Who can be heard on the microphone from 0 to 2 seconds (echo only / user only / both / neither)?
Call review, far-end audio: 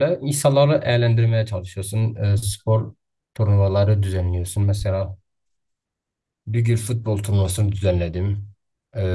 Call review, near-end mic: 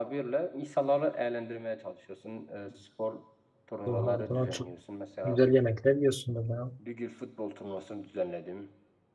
echo only